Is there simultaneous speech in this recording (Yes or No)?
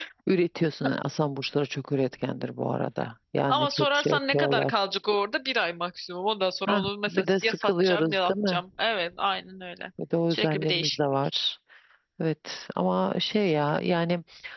Yes